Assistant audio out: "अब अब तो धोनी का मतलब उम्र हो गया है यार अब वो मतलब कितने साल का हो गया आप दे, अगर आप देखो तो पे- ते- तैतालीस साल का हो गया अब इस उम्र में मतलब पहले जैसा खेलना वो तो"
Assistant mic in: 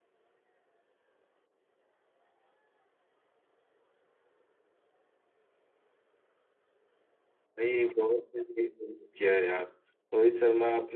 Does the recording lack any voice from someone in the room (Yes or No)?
No